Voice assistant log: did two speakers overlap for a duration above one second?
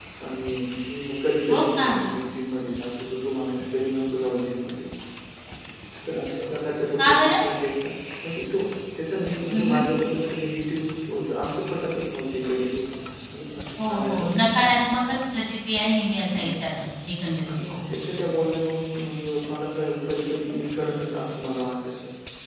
No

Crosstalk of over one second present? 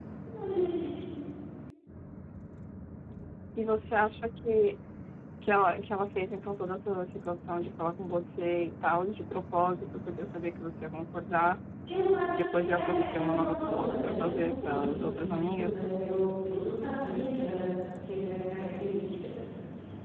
Yes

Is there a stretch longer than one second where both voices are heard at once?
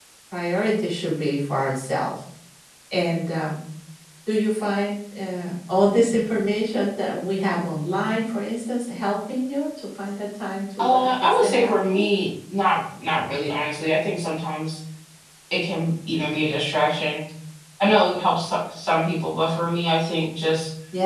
Yes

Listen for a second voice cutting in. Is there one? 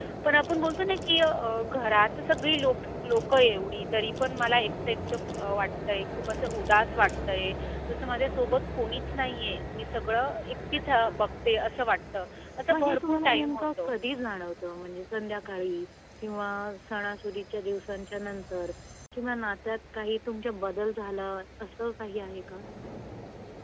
Yes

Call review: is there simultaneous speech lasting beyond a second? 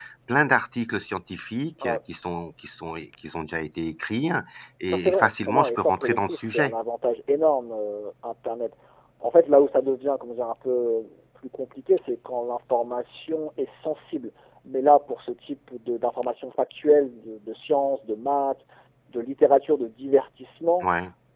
Yes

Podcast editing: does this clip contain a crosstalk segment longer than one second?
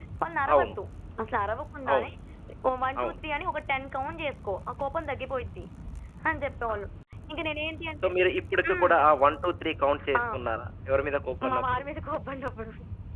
No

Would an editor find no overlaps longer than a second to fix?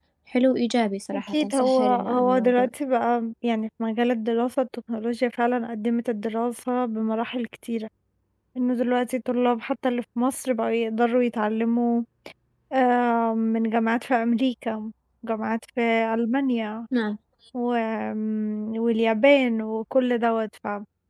No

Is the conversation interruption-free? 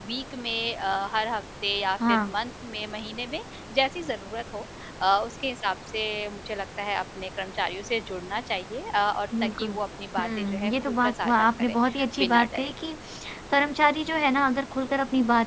No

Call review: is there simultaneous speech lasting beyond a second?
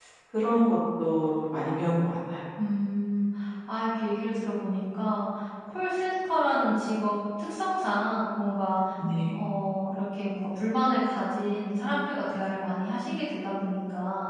No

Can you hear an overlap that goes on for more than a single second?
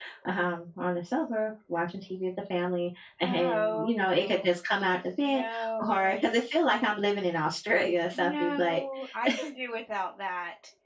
Yes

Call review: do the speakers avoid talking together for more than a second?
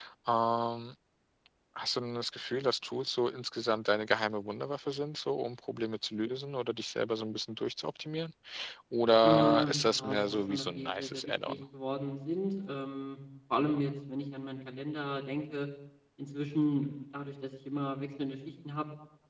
No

